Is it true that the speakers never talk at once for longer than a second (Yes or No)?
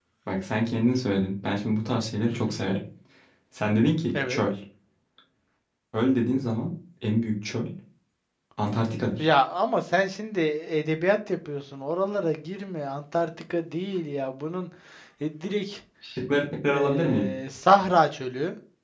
Yes